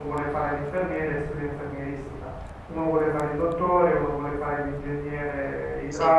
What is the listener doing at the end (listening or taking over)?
listening